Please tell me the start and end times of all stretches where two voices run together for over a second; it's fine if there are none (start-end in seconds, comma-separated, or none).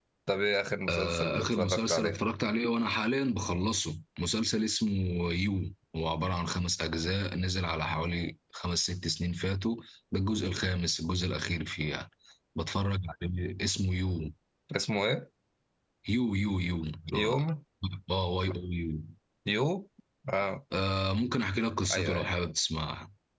0.9-2.2